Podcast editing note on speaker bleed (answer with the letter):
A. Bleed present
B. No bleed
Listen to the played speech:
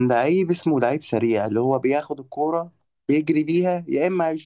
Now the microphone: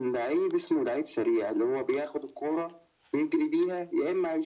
A